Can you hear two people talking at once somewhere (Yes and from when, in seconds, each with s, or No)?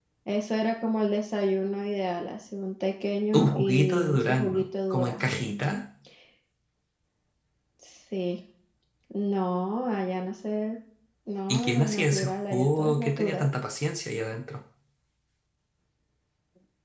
Yes, from 3.3 s